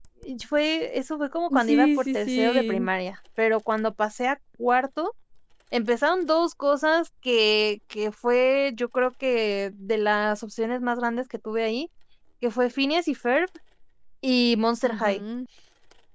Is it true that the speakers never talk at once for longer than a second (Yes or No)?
No